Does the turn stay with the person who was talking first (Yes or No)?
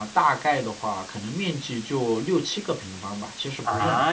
No